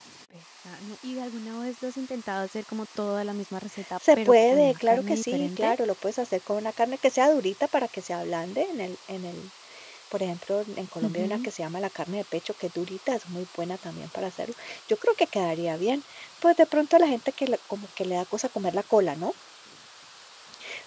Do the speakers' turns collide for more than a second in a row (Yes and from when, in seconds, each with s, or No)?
Yes, from 4.2 s